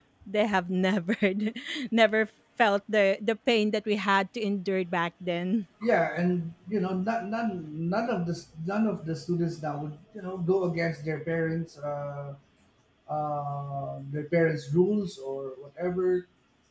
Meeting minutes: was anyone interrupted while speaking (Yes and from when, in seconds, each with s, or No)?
No